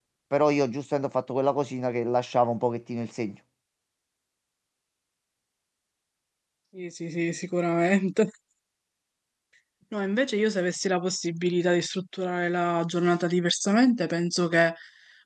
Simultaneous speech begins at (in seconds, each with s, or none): none